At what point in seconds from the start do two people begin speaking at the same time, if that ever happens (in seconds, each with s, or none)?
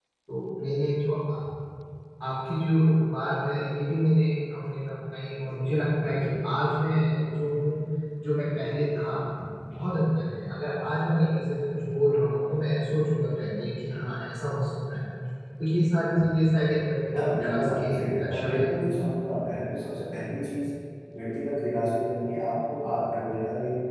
17.1 s